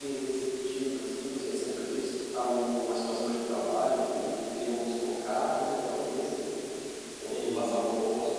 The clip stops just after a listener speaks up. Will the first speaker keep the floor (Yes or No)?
Yes